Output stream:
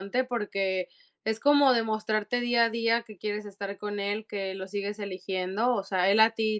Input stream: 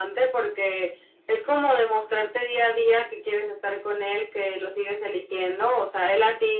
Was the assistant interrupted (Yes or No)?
No